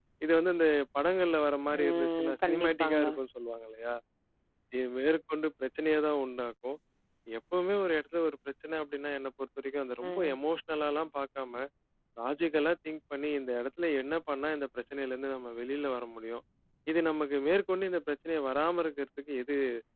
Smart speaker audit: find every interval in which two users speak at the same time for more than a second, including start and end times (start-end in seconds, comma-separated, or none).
1.8-3.1